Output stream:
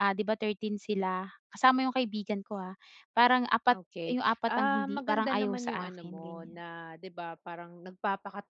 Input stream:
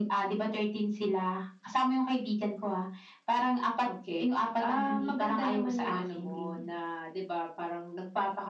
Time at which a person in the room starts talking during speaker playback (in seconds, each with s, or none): none